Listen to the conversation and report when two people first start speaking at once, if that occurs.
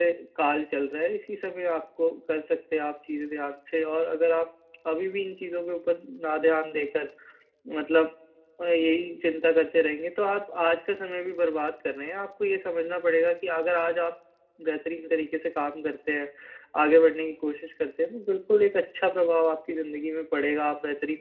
none

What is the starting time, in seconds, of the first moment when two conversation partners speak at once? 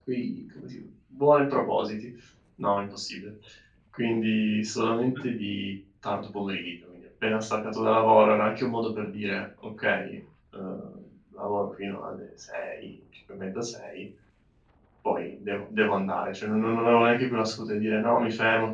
none

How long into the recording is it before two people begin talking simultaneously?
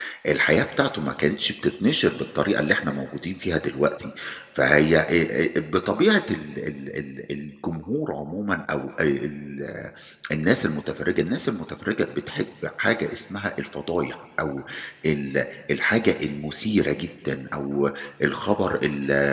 none

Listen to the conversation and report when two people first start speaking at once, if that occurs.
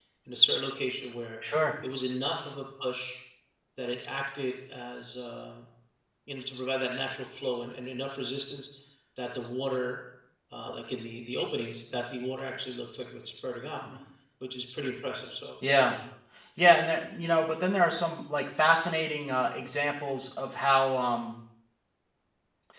none

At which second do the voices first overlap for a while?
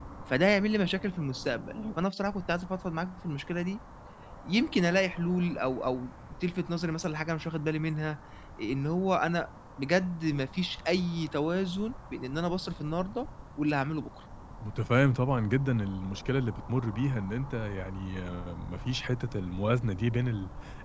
none

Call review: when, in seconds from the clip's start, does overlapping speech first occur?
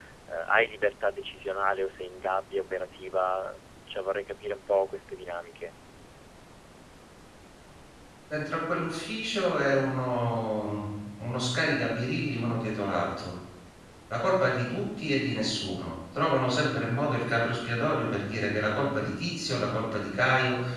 none

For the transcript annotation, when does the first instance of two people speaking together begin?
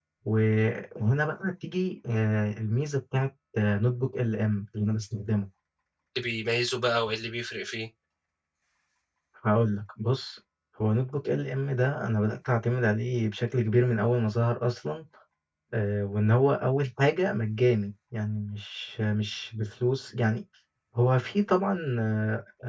none

